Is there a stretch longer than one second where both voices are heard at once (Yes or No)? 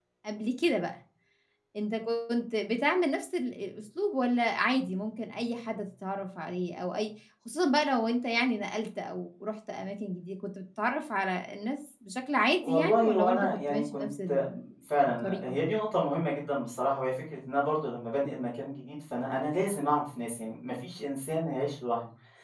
Yes